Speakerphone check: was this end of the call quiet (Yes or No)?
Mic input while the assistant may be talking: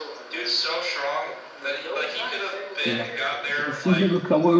No